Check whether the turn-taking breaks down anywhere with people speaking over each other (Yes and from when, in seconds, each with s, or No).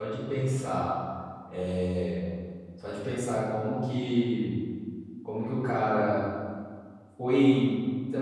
No